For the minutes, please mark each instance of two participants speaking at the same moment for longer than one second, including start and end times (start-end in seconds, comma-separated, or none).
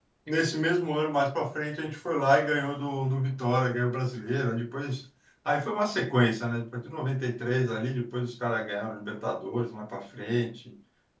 none